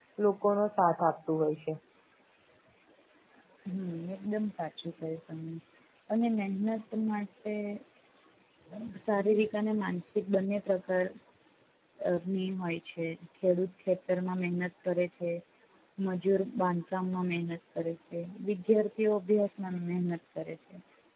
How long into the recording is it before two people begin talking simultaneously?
none

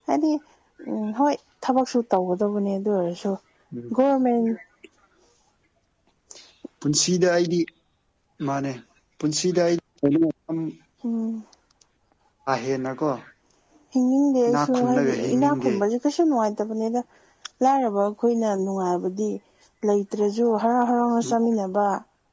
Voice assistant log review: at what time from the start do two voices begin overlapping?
14.5 s

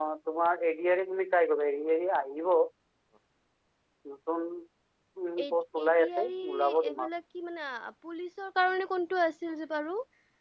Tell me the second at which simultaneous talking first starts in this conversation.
5.4 s

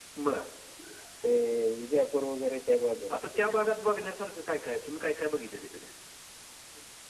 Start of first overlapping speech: none

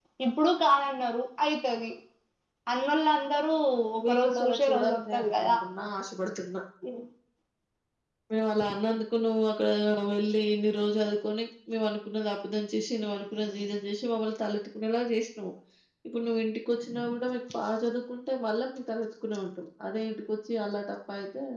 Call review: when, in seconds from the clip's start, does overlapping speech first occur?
4.0 s

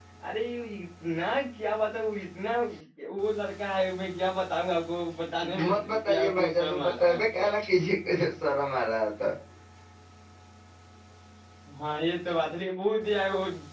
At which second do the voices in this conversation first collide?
5.5 s

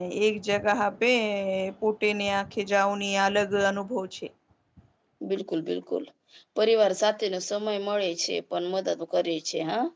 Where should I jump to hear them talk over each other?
none

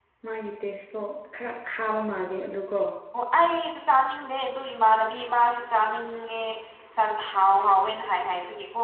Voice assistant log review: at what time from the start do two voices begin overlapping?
none

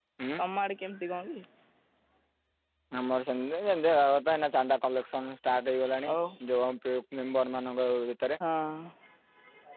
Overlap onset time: none

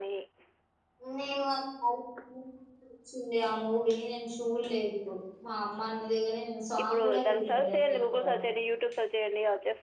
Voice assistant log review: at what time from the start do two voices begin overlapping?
6.8 s

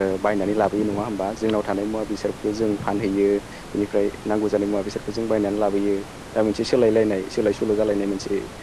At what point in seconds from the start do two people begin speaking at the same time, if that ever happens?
none

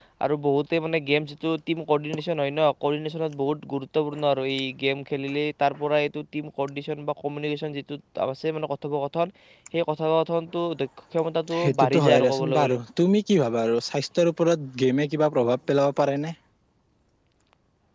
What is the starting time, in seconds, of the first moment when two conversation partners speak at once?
11.5 s

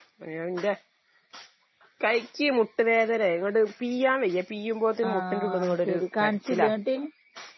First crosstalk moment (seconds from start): 5.0 s

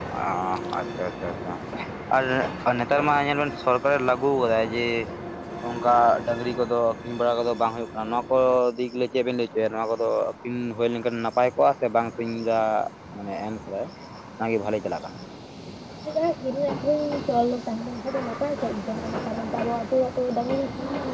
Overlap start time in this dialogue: none

